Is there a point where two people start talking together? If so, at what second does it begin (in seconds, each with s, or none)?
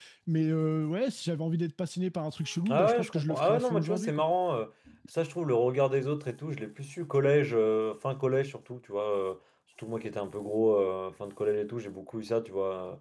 2.7 s